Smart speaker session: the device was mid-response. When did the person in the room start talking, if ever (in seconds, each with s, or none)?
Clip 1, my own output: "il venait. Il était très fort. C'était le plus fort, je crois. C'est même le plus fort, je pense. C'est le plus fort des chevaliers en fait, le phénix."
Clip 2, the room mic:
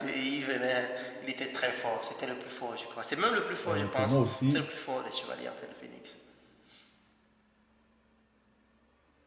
3.7 s